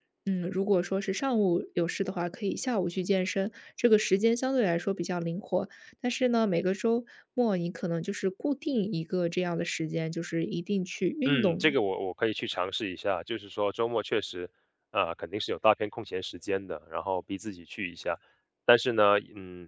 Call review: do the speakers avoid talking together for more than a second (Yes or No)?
Yes